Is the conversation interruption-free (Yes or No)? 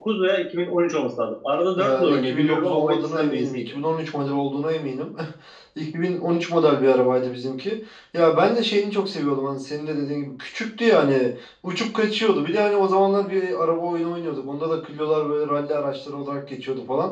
No